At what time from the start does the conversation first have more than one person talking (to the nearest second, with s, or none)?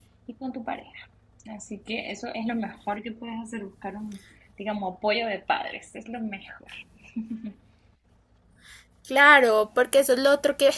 none